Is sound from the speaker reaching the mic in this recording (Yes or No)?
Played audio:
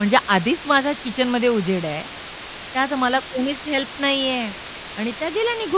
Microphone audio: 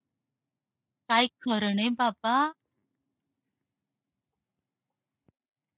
No